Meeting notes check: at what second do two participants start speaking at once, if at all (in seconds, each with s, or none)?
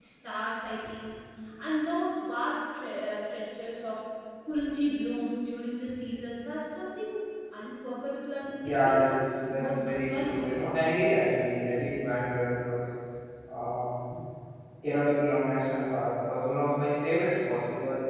8.6 s